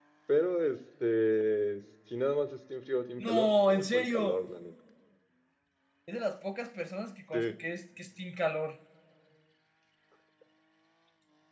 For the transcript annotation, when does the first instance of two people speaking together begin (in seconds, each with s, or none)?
3.2 s